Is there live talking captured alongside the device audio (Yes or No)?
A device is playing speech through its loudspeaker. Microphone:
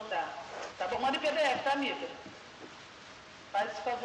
No